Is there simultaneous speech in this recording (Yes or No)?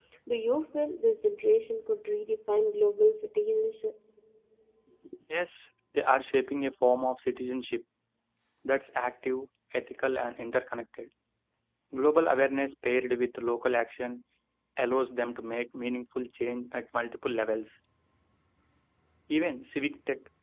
No